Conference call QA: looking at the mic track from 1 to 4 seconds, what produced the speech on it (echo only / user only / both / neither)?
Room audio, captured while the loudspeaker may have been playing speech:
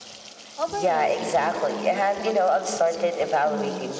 both